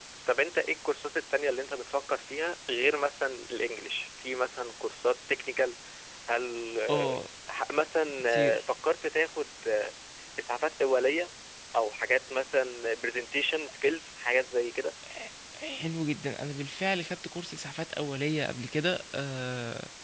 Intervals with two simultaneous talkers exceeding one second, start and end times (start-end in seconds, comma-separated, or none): none